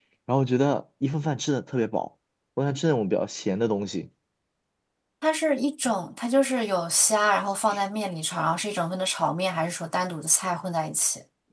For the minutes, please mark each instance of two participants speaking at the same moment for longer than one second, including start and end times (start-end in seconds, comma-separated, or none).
none